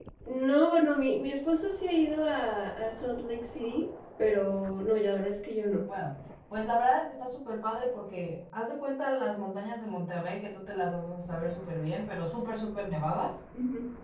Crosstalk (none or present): none